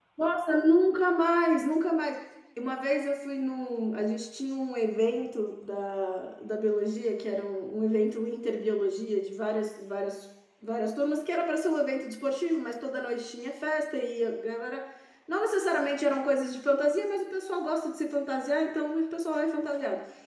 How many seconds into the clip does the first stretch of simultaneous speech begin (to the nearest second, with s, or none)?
none